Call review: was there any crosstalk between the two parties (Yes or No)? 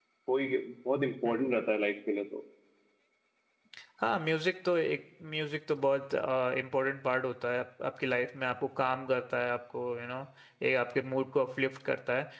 No